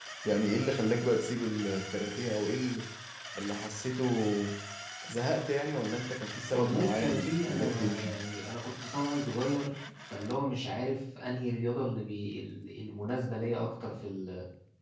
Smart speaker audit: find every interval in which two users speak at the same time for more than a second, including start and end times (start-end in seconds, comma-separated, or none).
6.5-8.1